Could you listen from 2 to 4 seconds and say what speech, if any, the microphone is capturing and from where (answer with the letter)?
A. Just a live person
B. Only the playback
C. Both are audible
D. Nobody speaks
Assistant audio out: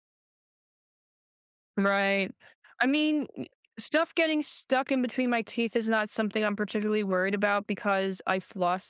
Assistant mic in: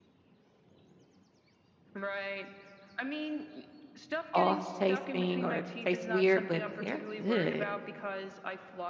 B